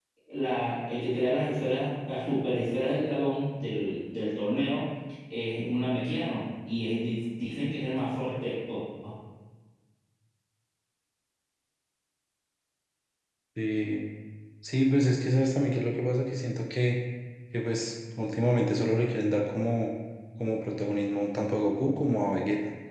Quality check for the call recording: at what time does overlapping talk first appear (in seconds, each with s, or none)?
none